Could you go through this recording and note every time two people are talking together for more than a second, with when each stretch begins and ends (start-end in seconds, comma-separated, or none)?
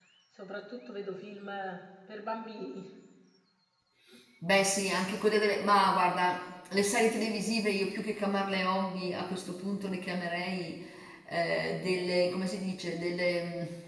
none